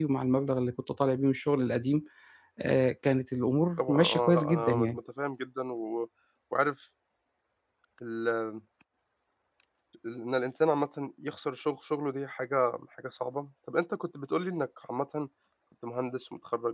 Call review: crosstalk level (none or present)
present